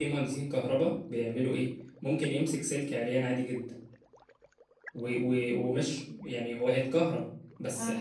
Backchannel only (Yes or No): Yes